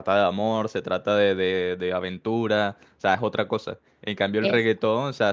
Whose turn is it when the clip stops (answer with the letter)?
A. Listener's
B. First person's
B